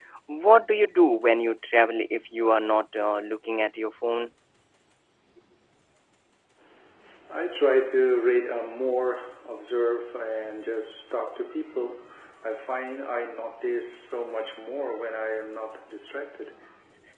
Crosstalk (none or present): none